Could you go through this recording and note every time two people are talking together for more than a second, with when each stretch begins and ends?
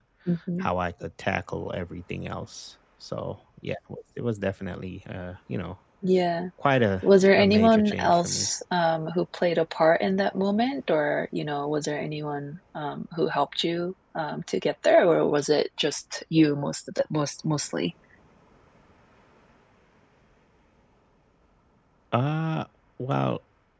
7.0-8.5

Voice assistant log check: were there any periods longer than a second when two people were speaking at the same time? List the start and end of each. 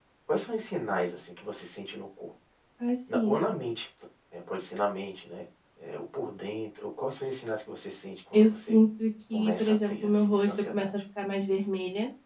9.3-10.9

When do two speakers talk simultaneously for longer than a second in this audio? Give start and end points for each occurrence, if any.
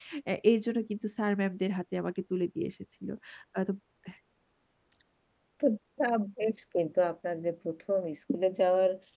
none

